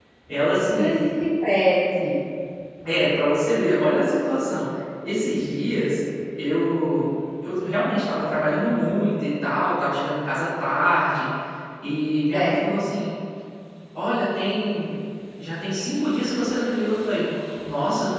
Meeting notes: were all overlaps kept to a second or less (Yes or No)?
Yes